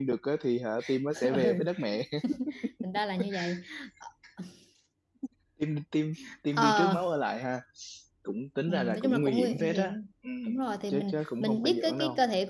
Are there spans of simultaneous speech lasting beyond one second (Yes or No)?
Yes